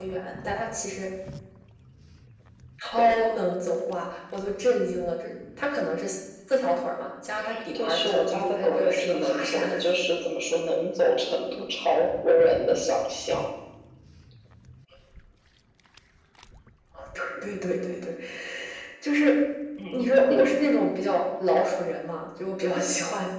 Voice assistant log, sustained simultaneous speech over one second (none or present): present